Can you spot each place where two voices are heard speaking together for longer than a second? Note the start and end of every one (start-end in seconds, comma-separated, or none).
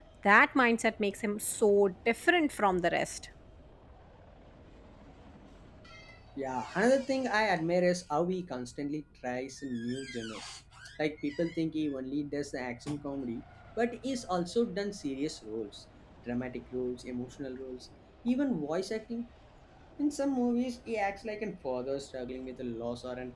none